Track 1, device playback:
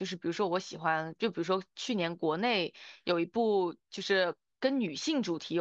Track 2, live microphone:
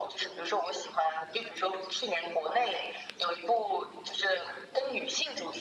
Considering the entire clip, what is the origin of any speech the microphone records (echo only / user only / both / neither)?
echo only